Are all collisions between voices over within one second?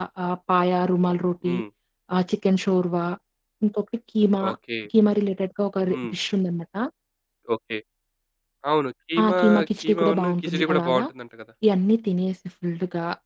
No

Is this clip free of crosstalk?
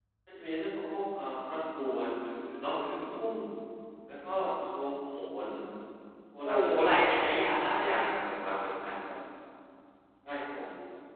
No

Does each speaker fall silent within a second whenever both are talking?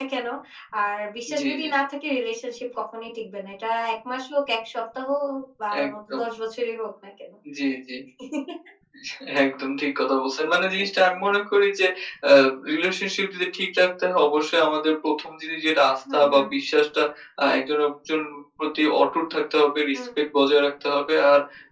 Yes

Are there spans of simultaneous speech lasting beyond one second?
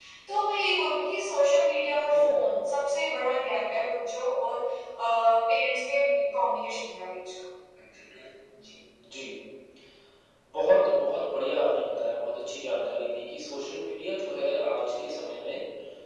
No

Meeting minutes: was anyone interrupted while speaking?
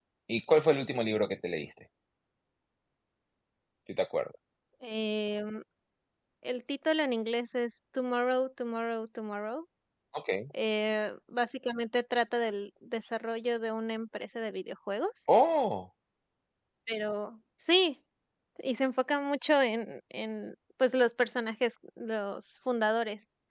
No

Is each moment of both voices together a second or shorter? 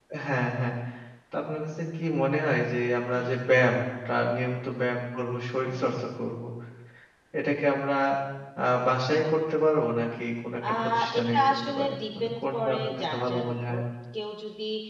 No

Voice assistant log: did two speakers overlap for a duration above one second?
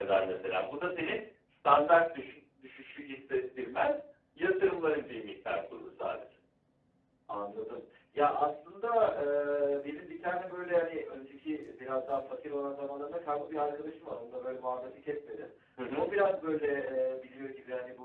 No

